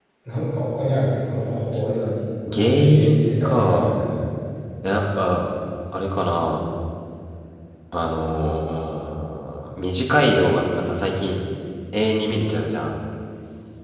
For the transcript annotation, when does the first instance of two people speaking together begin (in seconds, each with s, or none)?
2.5 s